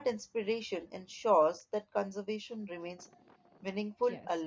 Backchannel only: No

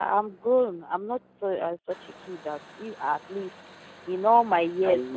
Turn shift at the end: No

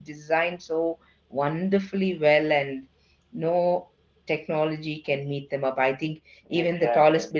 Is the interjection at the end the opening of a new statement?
No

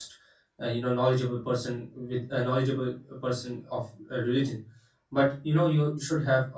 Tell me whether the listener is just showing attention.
Yes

